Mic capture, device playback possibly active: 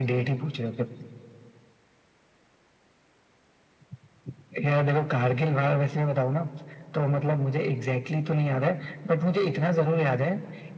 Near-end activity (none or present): none